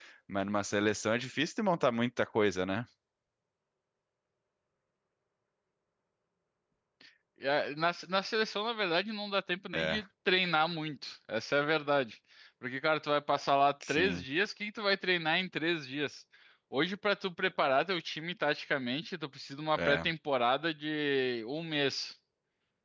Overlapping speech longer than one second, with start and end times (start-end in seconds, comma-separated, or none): none